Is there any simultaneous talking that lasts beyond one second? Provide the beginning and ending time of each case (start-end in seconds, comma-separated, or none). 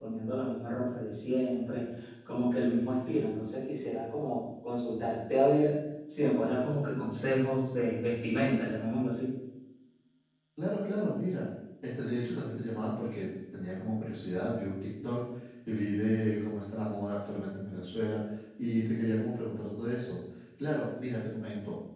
none